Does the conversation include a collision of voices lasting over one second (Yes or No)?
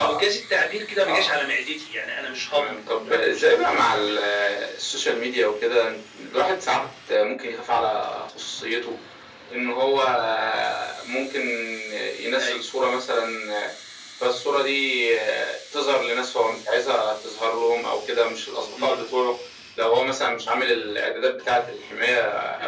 Yes